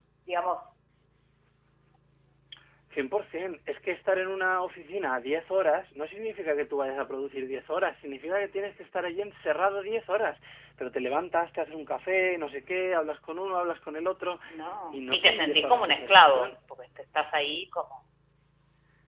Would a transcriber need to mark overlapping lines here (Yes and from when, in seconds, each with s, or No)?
Yes, from 15.0 s